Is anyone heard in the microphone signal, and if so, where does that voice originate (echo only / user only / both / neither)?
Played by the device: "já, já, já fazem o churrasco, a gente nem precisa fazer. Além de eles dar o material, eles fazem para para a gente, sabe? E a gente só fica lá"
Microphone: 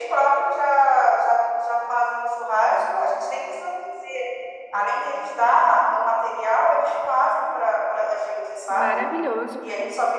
both